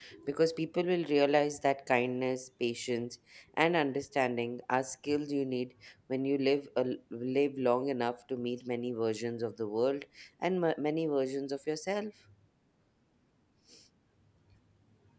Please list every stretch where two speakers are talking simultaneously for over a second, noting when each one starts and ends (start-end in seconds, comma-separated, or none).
none